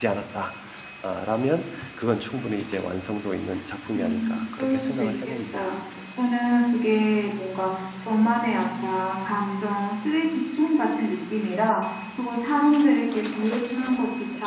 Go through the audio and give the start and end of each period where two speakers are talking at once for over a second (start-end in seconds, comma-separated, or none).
4.0-5.8